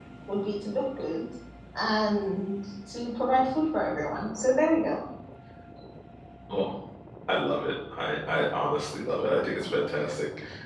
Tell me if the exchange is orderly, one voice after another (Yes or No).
Yes